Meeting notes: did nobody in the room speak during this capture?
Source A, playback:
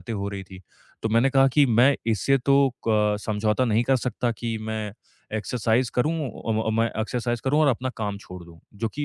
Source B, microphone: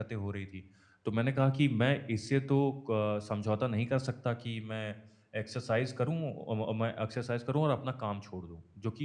Yes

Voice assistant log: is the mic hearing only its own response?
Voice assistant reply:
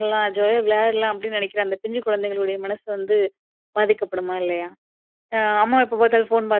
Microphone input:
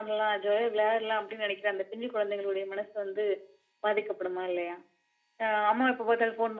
Yes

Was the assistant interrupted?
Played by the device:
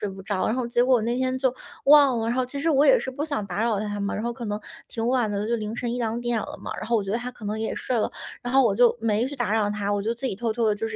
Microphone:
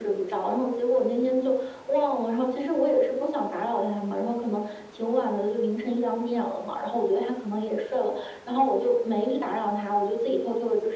No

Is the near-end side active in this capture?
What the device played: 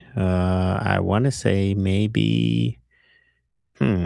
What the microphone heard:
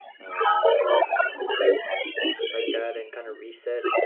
Yes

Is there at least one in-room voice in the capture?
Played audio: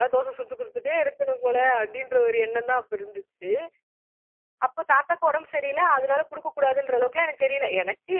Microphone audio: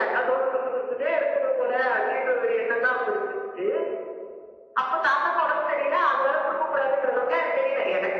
No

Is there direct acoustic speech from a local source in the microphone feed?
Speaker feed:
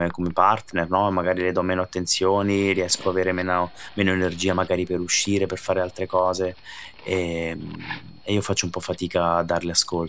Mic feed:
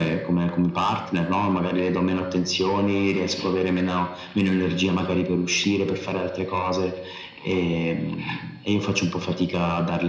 No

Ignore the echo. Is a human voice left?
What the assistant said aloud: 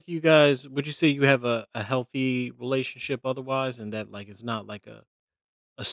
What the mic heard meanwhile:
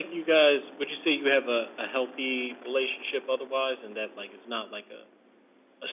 No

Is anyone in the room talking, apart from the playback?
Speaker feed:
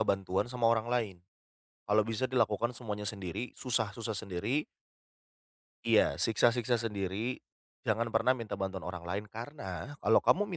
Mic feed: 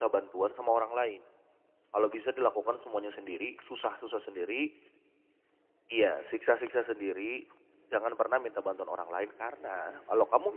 No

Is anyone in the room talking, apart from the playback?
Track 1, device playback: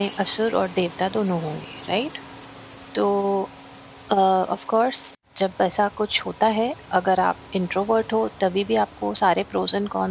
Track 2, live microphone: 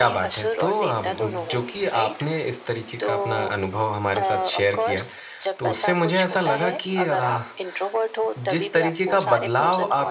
Yes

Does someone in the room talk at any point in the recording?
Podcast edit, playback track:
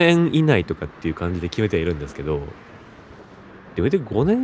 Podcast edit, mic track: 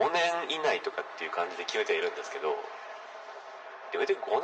No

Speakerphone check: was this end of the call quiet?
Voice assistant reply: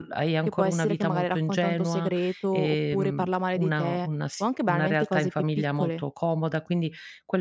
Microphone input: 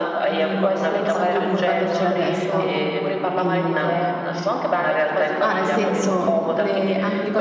No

